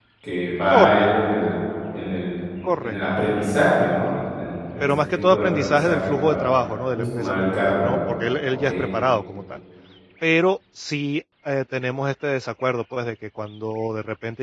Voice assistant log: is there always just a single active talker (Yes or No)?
No